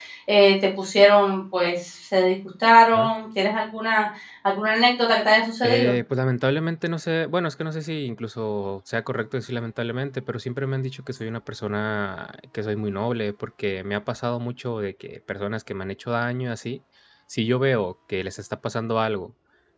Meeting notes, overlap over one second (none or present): none